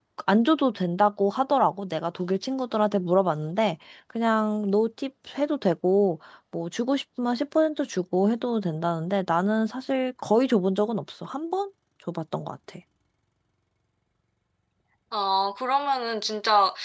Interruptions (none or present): none